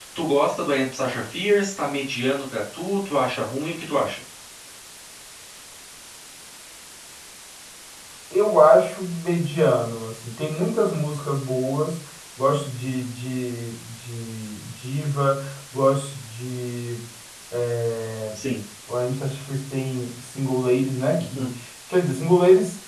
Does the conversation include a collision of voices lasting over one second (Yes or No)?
No